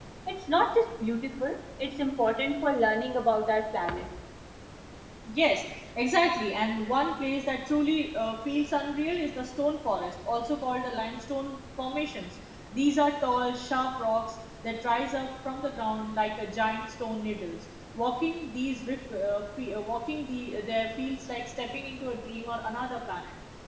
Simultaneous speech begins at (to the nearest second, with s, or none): none